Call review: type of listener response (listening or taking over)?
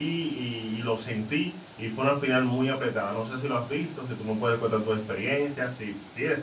taking over